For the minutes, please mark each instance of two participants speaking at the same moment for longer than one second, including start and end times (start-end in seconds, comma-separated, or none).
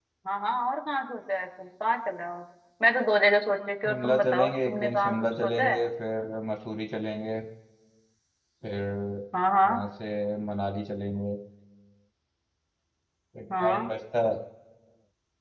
3.9-5.8